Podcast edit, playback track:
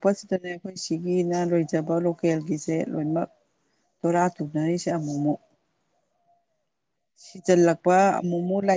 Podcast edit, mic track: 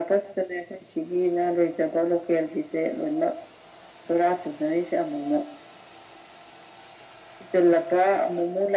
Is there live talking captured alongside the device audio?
No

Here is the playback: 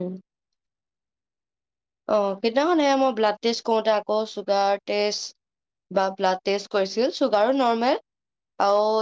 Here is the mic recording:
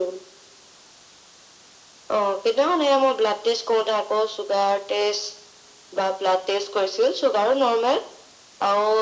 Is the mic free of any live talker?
Yes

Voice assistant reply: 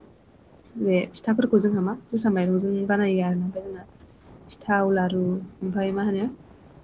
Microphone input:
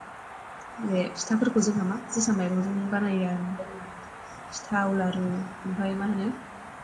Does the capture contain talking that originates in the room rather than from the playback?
No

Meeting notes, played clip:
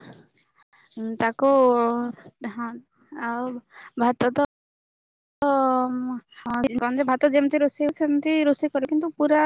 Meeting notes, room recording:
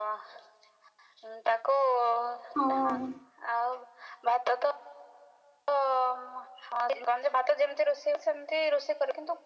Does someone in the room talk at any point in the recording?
Yes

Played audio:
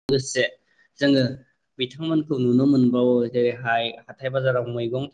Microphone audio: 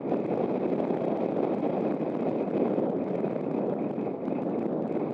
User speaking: No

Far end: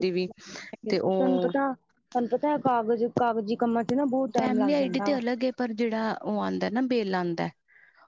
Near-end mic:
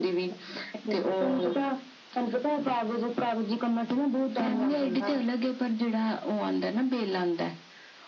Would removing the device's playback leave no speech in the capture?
Yes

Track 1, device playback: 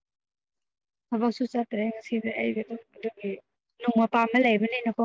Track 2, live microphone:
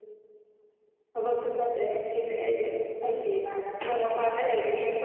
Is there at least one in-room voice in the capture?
Yes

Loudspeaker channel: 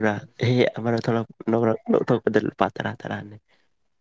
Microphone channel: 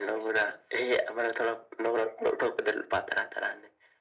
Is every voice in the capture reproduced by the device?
Yes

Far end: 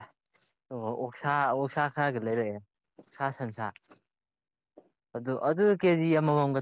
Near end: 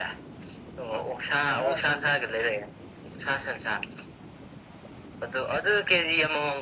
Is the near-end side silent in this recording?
No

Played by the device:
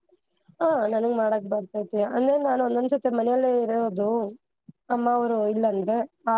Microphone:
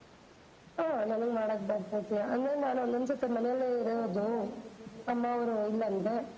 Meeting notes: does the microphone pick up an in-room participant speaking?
Yes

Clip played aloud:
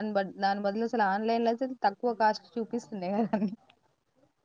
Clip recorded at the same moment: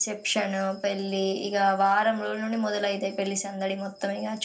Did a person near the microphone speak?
Yes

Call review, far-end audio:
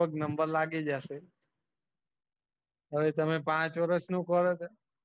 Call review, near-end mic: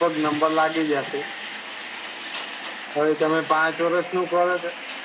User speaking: No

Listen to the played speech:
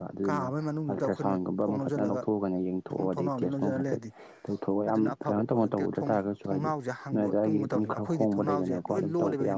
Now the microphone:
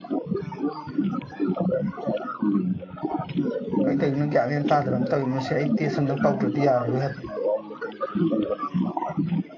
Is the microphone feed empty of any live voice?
No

